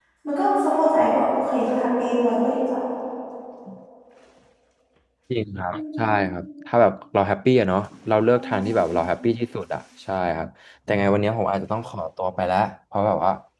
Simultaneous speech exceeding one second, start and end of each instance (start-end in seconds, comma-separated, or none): none